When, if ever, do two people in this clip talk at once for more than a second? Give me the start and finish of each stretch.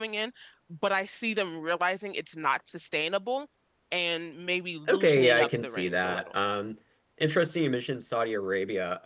4.9-6.3

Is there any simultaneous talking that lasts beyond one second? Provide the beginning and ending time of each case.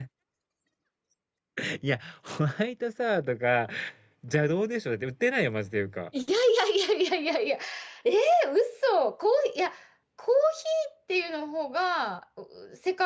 none

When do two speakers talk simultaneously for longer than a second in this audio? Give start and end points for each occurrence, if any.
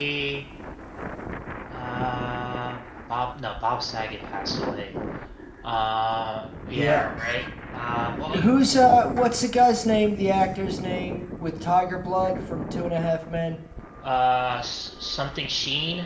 none

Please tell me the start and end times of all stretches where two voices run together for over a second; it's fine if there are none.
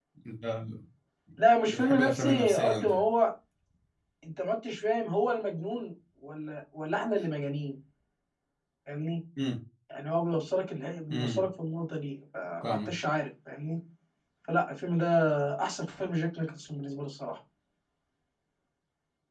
1.7-3.0

